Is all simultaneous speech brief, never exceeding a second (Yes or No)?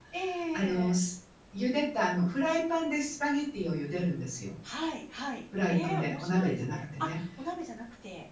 No